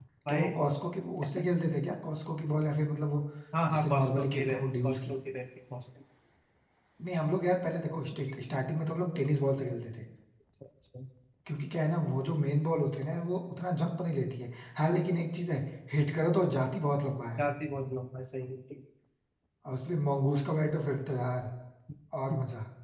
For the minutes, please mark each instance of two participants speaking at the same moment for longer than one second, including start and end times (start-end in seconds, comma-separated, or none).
3.7-5.1